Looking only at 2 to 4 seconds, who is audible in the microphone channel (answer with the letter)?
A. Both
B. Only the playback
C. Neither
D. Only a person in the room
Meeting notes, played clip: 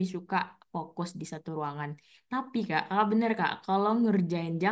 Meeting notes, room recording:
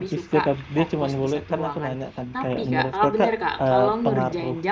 A